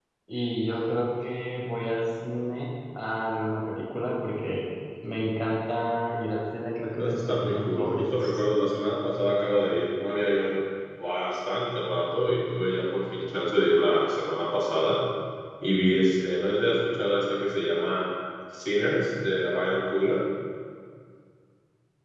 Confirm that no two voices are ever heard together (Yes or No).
No